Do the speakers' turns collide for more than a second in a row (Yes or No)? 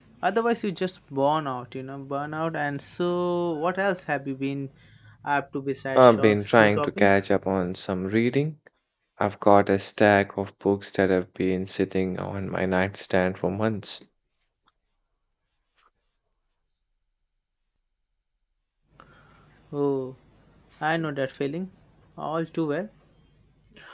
Yes